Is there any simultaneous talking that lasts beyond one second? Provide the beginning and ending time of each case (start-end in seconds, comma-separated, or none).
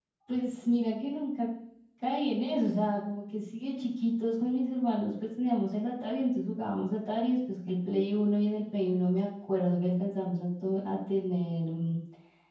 none